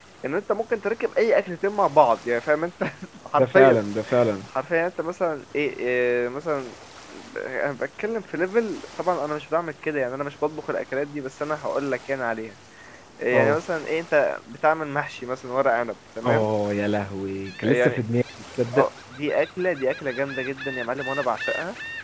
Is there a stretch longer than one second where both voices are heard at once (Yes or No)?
No